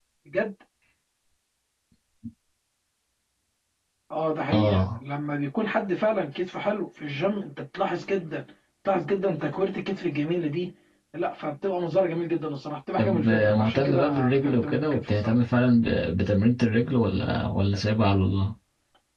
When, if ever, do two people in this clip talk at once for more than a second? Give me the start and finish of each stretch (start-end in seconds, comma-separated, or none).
13.0-15.3